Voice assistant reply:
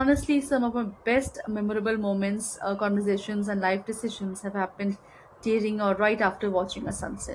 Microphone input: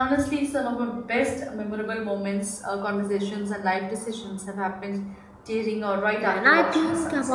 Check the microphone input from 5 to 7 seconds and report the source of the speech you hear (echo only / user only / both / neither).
both